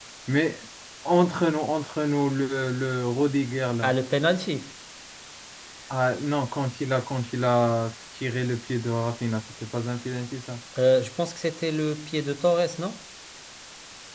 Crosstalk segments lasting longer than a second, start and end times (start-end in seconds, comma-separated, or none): none